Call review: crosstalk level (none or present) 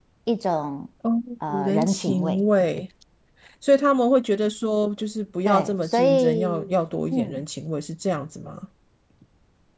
present